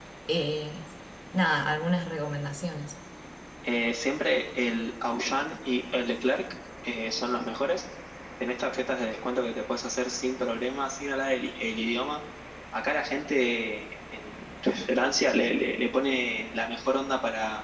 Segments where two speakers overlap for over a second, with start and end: none

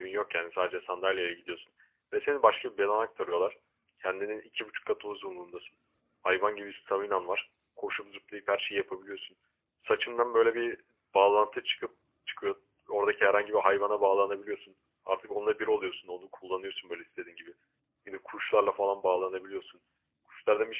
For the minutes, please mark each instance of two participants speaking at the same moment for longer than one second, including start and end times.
none

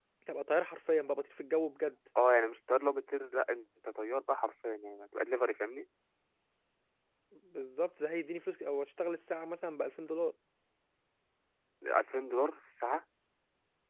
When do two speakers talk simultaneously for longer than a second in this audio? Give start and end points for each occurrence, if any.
none

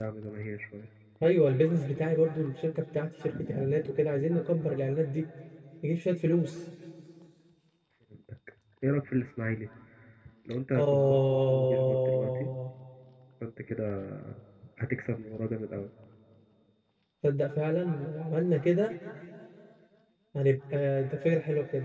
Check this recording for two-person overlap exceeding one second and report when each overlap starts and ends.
10.8-12.5

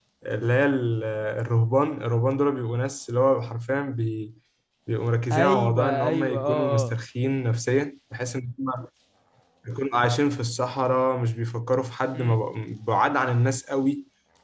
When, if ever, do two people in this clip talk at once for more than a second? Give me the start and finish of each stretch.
5.3-6.9

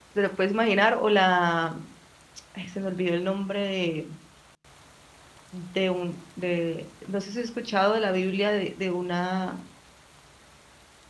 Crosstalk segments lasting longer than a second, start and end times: none

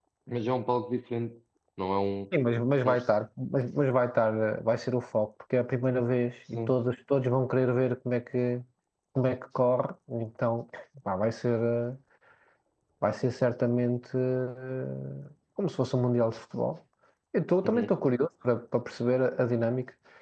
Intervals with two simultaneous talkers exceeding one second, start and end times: none

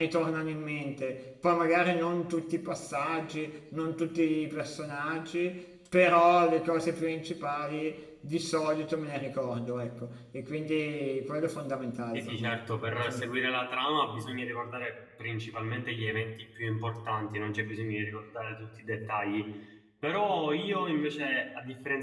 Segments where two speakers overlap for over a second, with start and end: none

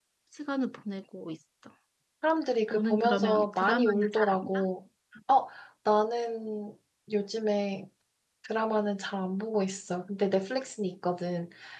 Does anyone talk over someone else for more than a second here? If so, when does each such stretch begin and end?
2.7-4.6

